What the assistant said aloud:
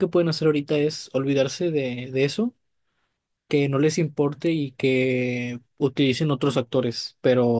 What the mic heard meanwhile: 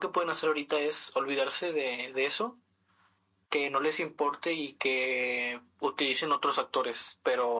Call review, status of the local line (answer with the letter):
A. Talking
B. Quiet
B